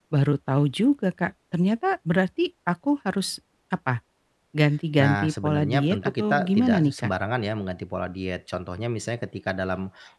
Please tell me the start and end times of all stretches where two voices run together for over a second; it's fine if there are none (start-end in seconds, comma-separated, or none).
5.0-7.1